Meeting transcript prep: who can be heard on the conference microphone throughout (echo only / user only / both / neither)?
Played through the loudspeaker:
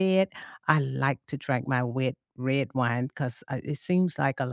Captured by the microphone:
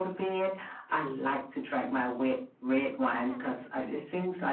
both